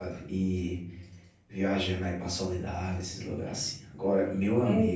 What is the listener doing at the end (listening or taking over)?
listening